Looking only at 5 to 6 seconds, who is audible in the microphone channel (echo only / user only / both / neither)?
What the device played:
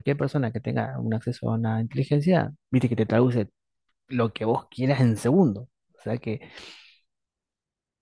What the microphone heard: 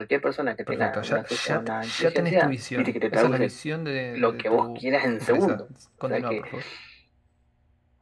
both